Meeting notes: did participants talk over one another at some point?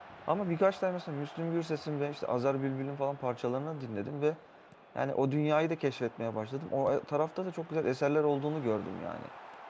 No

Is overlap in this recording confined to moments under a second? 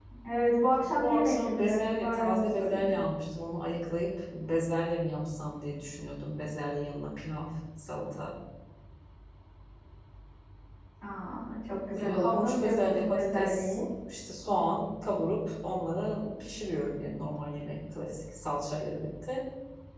No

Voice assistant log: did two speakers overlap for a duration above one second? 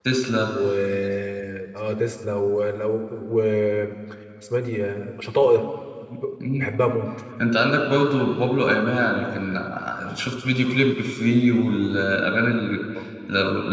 No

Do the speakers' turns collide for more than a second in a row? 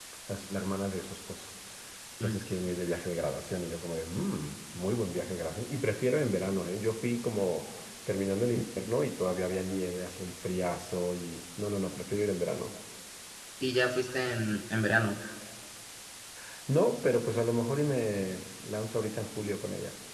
No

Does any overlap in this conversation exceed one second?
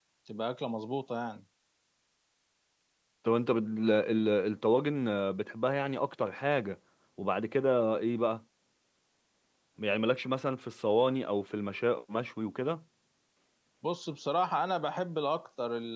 No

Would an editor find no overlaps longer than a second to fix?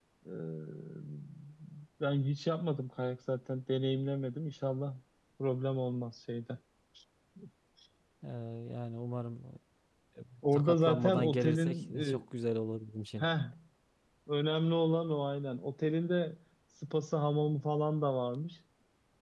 No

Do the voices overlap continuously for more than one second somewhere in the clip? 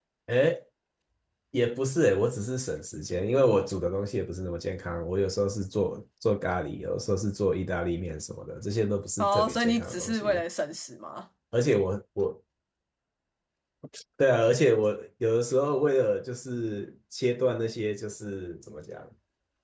Yes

